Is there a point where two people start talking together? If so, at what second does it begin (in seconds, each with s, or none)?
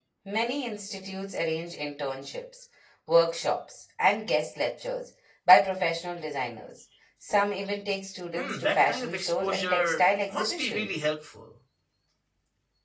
8.4 s